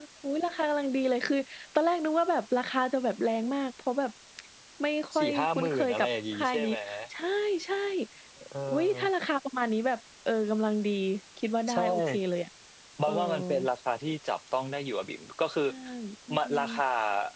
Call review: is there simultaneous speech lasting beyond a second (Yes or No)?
Yes